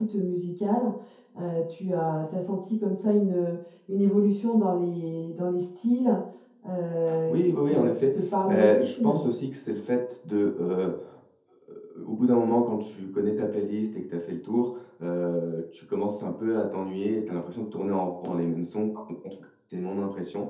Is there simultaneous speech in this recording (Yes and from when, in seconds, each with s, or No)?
Yes, from 7.3 s